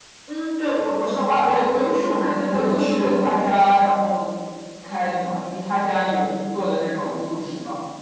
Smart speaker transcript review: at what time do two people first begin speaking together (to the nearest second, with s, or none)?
1 s